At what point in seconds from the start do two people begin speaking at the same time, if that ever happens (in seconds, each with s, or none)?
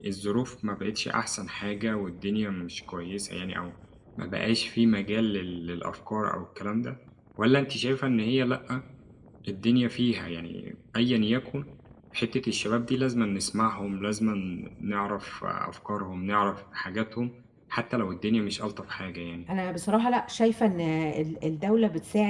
none